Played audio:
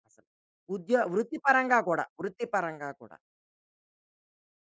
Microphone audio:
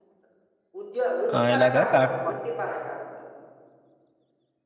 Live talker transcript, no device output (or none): ఆహ్, ఇలాగా కాకపోతే